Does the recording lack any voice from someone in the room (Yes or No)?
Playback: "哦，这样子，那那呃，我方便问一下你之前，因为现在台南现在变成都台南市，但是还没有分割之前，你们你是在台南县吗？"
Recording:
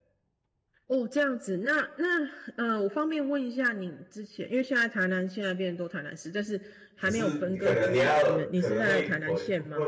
No